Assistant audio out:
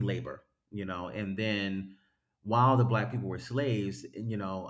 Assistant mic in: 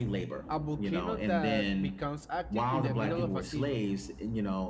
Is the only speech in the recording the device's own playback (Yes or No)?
No